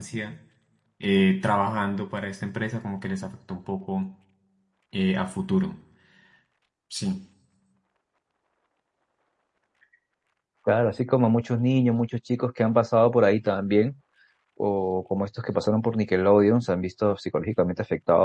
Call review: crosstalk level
none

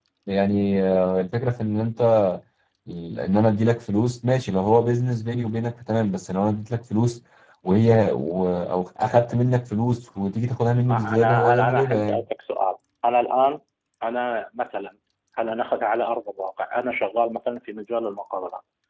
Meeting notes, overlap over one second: present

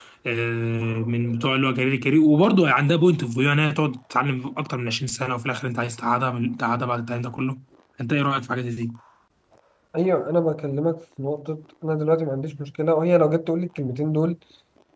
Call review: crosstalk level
none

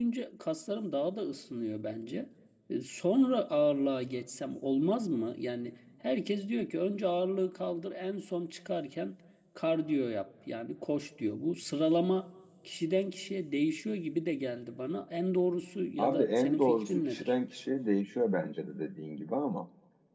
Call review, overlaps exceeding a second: present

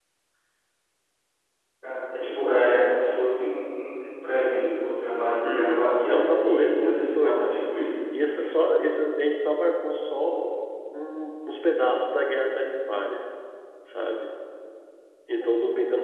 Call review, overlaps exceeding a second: present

